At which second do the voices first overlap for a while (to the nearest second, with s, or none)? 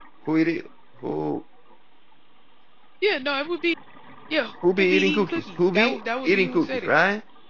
5 s